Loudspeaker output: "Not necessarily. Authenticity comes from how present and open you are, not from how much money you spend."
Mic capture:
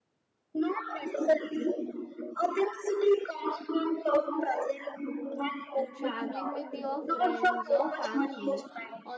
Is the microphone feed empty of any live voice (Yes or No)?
No